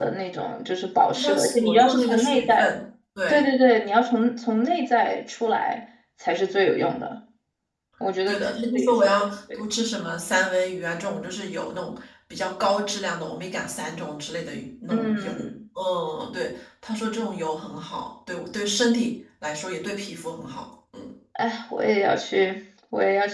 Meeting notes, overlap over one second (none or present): present